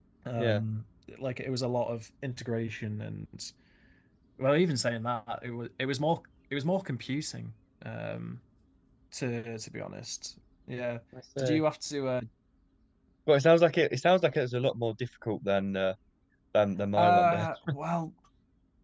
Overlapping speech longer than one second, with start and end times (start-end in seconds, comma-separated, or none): none